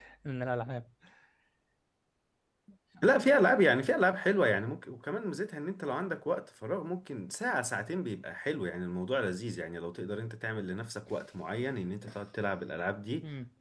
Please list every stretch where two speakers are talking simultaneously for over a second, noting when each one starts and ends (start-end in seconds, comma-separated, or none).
none